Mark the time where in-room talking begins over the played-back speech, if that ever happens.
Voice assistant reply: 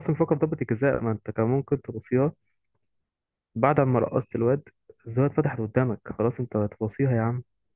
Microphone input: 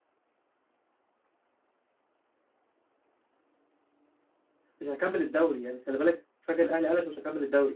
4.8 s

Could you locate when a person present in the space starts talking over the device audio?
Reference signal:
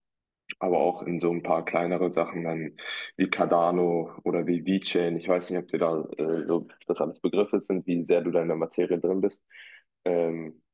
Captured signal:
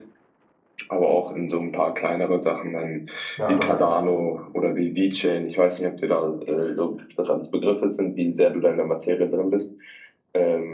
3.4 s

